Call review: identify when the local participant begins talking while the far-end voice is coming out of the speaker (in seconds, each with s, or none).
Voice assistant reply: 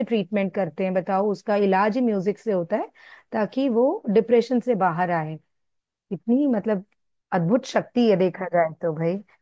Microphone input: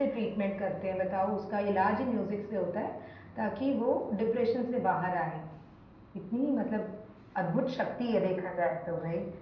none